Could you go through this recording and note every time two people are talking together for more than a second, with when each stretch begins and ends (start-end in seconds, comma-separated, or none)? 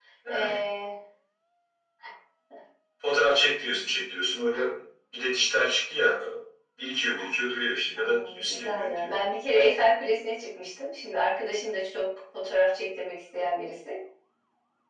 8.0-9.2